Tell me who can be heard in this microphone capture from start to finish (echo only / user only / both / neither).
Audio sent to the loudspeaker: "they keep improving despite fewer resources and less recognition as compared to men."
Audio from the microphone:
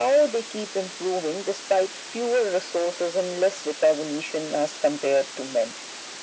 echo only